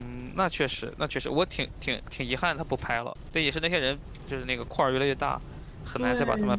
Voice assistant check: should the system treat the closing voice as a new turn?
Yes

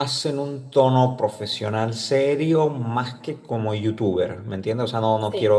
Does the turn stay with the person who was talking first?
Yes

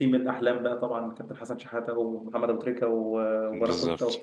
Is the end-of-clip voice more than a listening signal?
No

